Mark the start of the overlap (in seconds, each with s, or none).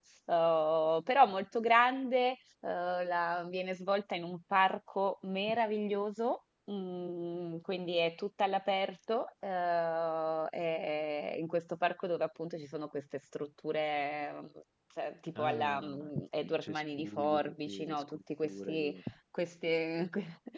15.3 s